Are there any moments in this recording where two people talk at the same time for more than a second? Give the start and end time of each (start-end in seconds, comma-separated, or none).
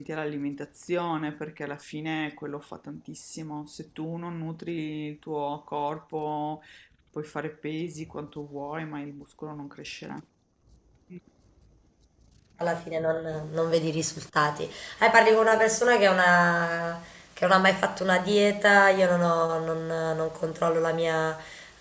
none